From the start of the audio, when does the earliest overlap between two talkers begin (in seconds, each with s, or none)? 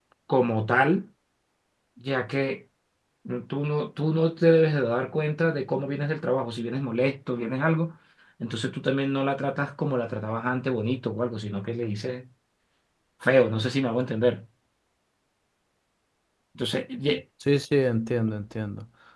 none